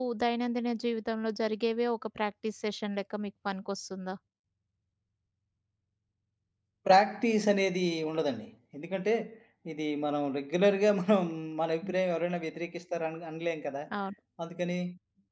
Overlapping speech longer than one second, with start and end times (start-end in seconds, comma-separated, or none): none